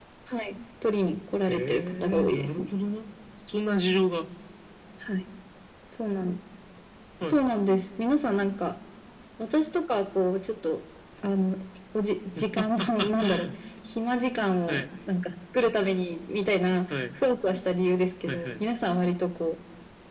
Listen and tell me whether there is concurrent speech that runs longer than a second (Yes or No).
Yes